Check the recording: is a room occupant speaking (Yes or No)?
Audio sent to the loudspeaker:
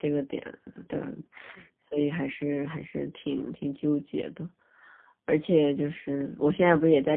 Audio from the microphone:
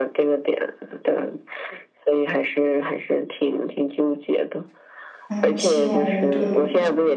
Yes